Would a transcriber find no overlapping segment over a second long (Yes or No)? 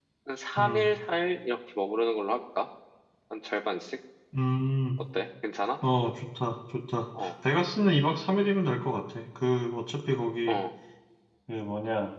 Yes